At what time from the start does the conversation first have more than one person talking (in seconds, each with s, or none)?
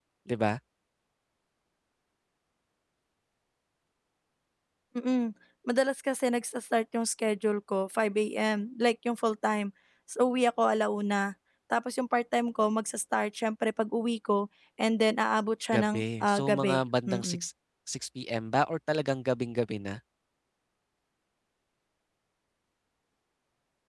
15.7 s